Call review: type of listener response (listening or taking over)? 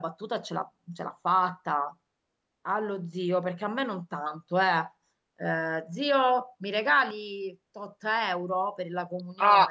taking over